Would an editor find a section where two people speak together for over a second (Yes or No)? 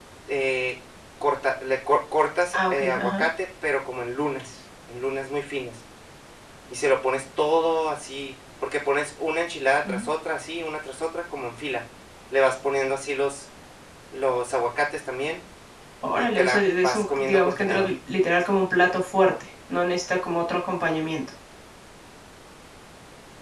Yes